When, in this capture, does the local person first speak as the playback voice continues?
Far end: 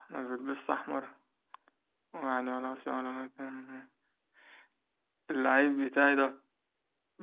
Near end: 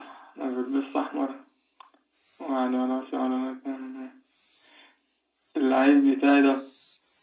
none

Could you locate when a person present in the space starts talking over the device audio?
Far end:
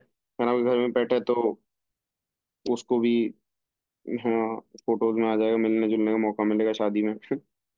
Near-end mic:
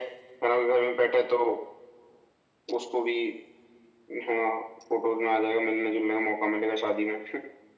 none

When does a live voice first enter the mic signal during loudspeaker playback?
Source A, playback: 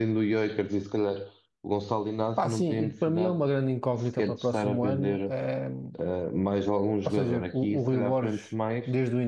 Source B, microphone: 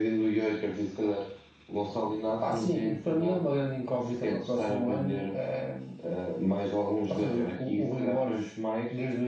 none

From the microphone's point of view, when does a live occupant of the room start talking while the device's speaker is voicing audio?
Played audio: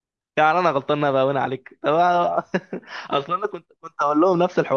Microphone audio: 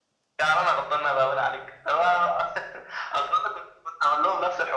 none

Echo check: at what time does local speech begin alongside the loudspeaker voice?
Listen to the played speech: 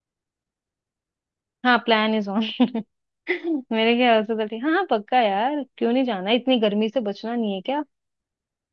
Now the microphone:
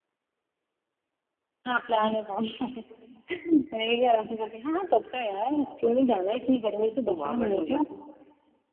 7.1 s

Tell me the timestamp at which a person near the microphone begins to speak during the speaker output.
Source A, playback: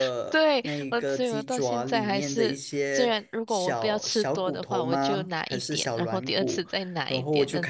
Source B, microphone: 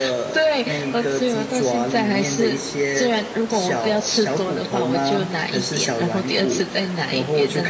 none

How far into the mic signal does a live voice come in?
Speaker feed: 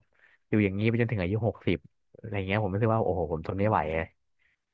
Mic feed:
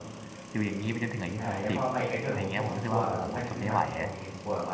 1.4 s

